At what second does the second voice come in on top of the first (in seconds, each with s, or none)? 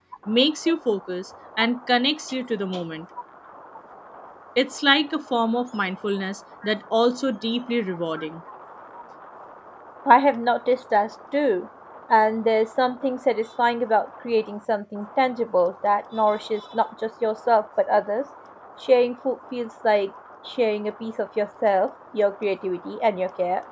none